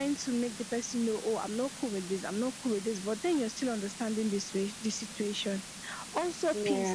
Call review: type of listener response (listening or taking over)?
listening